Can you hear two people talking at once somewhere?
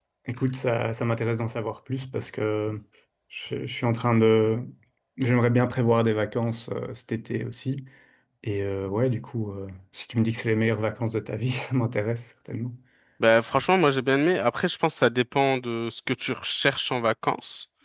No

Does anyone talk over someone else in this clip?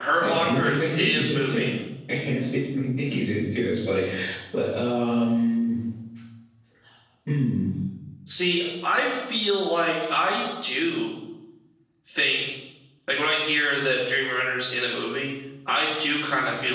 Yes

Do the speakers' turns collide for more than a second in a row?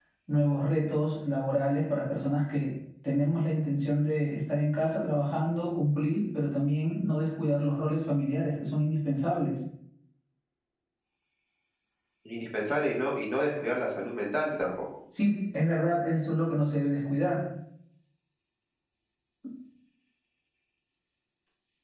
No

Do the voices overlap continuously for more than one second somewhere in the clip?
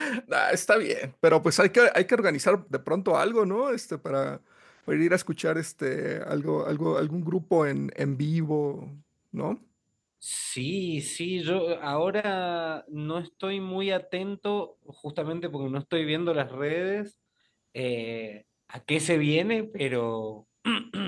No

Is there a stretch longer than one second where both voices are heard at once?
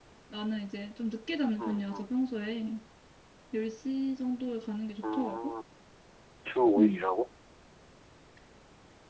No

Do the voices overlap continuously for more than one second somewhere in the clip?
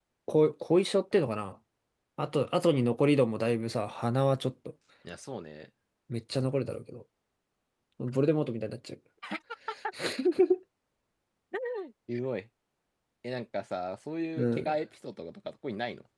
No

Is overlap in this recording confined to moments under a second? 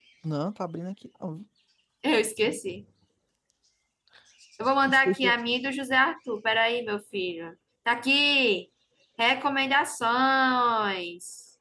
Yes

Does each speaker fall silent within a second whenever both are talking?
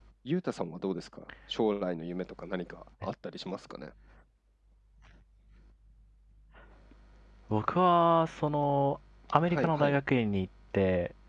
Yes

